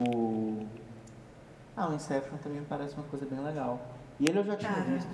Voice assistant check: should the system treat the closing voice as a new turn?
No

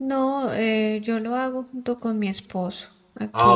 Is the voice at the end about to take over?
Yes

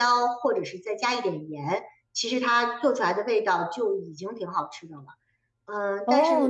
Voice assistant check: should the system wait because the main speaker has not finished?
No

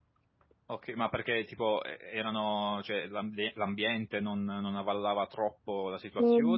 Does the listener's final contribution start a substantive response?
Yes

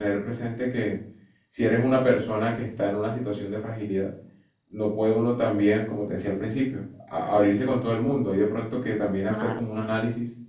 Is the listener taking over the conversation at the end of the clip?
No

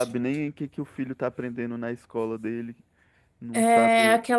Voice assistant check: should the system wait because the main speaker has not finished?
No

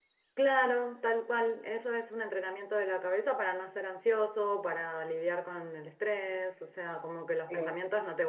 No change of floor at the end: Yes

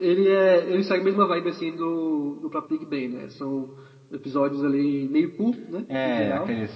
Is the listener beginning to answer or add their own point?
Yes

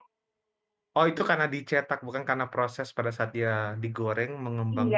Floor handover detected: Yes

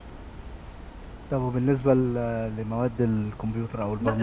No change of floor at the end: No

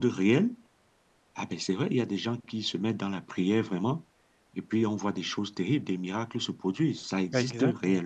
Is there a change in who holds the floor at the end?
Yes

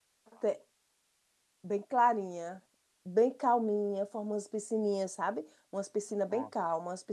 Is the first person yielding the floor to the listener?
No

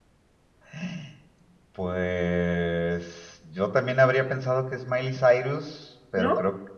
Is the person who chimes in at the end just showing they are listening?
Yes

